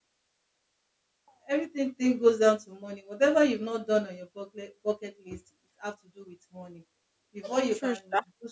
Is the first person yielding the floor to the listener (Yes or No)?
No